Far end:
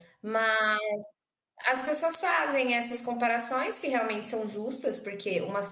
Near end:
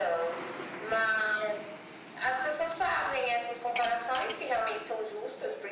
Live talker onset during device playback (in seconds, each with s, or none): none